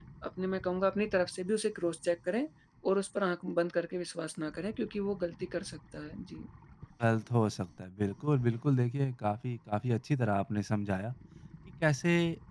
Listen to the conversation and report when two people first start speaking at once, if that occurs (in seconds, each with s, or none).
none